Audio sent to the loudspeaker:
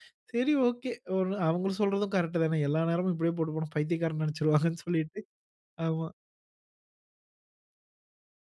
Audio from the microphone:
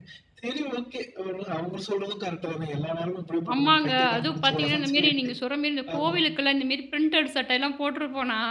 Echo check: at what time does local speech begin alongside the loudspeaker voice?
3.5 s

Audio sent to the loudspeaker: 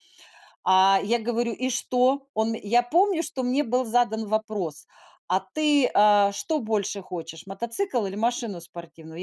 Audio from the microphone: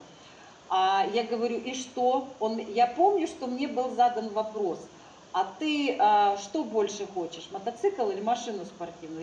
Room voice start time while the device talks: none

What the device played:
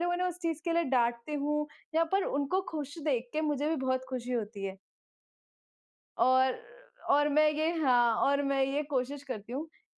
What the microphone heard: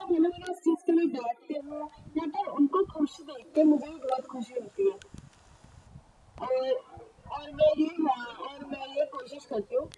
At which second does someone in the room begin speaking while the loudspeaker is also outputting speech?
none

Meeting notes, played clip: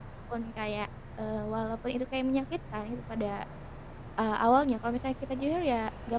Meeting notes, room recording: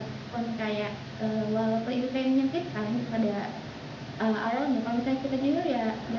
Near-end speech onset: none

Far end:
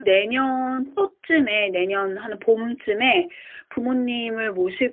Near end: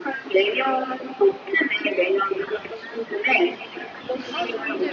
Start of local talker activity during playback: 4.0 s

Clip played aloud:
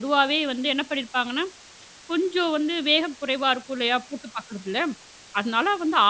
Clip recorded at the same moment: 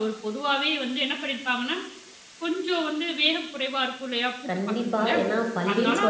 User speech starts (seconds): 4.5 s

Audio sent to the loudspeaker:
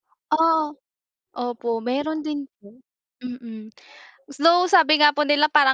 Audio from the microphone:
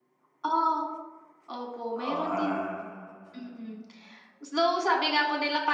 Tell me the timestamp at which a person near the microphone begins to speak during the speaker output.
2.0 s

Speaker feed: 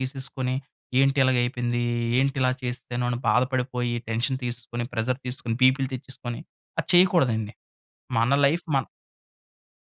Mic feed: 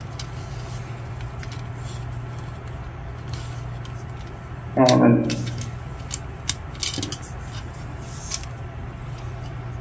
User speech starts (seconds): 4.8 s

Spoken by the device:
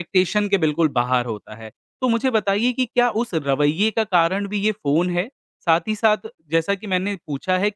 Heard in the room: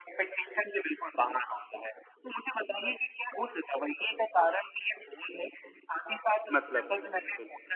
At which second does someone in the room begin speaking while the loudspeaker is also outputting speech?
6.5 s

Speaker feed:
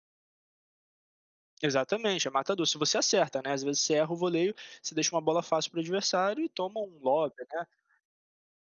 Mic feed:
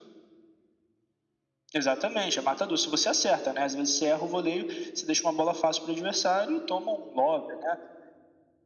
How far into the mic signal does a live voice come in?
none

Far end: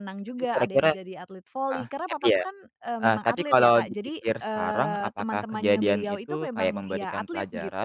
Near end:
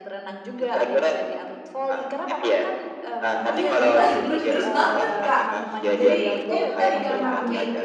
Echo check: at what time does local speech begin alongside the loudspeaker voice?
3.5 s

